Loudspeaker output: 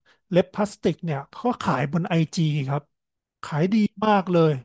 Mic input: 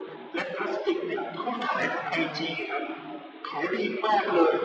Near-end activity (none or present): present